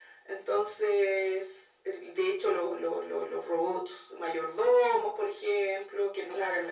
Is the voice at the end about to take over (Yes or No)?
No